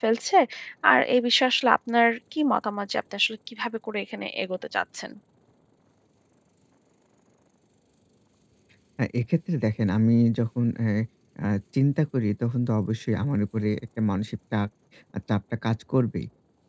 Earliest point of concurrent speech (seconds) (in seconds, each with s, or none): none